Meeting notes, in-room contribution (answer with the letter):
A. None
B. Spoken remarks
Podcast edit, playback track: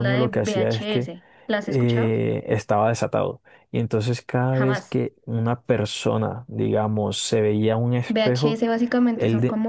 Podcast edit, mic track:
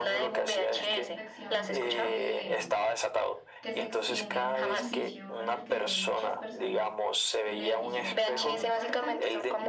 B